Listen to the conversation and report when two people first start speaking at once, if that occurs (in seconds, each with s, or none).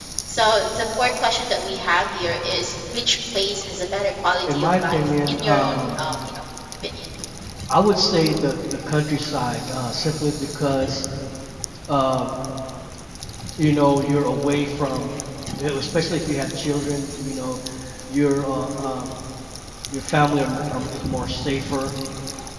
4.5 s